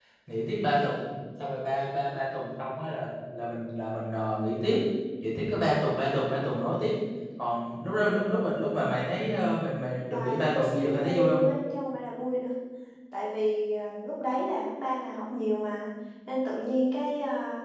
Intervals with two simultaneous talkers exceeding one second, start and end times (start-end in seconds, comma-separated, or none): 10.1-11.4